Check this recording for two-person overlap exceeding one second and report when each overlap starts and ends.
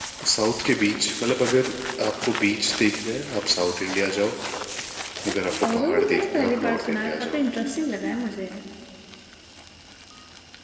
5.3-7.4

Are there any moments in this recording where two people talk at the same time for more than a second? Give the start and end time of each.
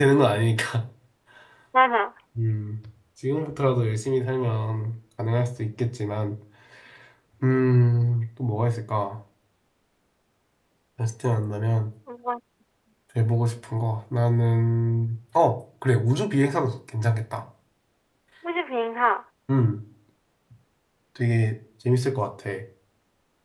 none

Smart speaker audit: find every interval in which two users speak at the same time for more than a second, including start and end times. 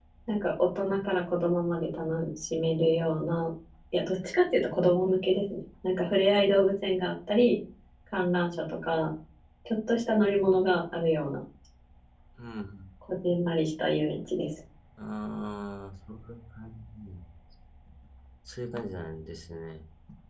none

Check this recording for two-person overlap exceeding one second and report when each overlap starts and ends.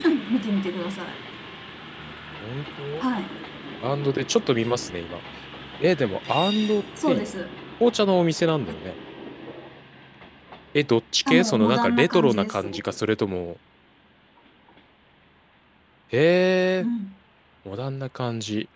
11.3-12.8

